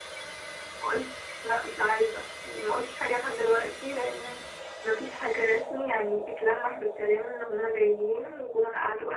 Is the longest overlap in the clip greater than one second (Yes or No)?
No